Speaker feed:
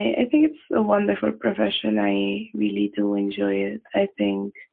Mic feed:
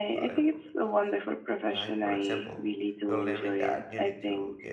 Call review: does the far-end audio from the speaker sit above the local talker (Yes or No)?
Yes